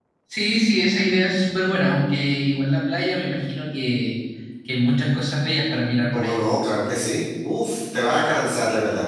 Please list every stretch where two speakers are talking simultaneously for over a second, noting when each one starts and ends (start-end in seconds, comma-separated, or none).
none